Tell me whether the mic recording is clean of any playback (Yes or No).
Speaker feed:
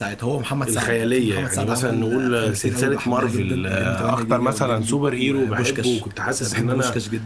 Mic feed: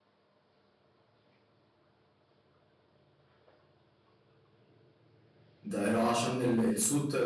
Yes